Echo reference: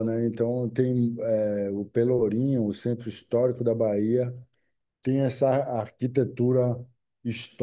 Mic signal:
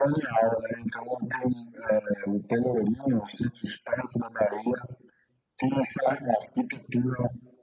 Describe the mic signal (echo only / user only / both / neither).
echo only